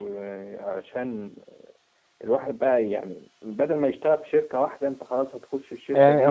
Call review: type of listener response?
taking over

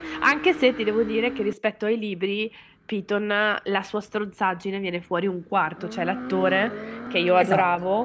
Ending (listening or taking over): listening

